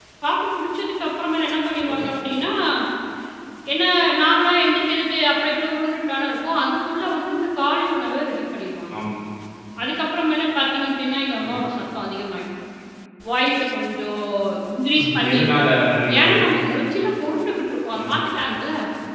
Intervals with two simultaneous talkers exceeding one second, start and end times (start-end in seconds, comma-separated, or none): none